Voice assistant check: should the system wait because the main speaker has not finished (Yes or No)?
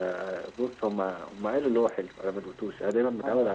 No